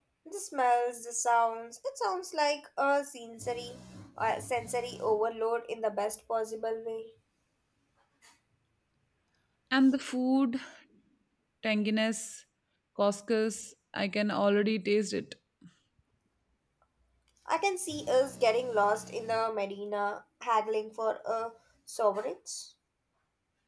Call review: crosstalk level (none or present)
none